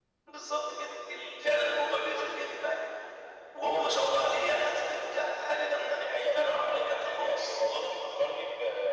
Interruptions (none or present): present